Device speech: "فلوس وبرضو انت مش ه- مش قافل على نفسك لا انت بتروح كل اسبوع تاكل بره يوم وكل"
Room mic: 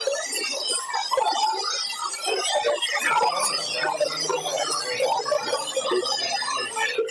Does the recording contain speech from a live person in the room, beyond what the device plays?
Yes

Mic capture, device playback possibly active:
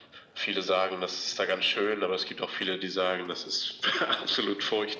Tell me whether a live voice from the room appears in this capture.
No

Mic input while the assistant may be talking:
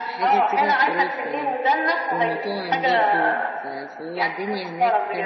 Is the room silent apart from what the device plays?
No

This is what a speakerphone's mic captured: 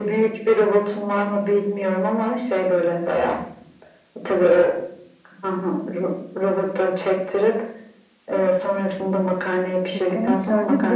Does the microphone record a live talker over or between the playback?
Yes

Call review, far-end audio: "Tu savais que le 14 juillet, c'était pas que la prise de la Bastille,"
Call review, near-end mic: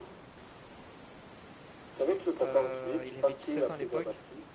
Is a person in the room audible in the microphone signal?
Yes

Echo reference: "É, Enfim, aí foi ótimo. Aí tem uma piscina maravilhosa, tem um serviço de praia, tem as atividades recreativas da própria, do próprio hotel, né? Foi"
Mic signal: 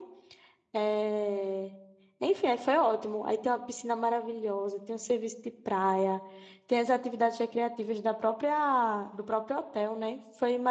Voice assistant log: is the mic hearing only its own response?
Yes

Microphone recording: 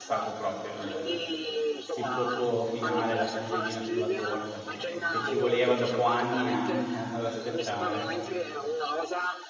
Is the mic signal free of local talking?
No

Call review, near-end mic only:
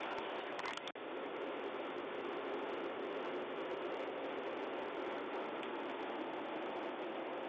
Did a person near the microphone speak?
No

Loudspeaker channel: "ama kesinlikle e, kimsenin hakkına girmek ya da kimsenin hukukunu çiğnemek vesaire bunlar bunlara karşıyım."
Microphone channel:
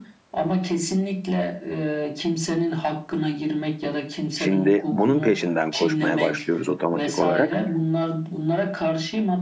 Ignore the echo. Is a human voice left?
Yes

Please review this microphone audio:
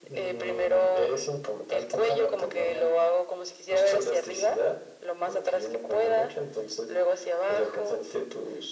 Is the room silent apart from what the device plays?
Yes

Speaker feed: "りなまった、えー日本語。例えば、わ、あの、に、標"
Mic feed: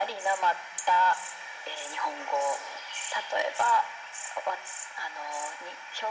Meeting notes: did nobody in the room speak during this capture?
Yes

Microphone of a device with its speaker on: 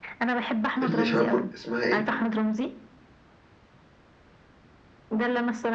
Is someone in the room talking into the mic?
Yes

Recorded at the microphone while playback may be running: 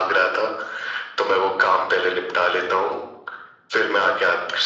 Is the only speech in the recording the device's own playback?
Yes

